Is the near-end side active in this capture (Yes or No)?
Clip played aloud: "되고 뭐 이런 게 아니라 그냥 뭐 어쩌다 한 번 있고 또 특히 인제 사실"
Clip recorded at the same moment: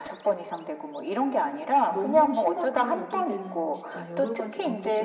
Yes